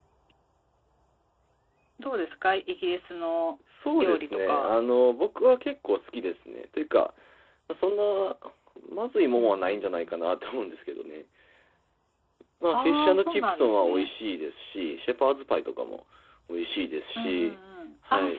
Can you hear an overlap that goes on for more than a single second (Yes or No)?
Yes